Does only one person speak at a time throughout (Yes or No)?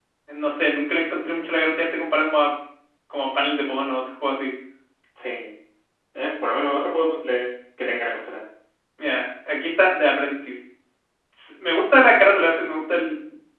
Yes